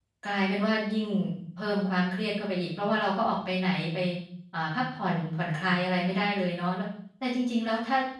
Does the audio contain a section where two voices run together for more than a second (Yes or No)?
No